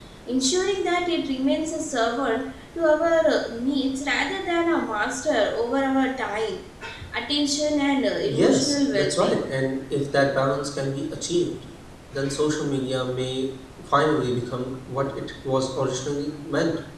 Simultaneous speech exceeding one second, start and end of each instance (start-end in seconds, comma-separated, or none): 8.2-9.5